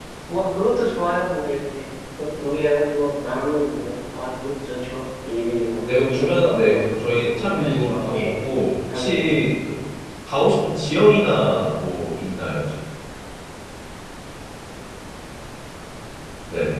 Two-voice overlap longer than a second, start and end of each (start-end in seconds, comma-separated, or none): 5.9-8.3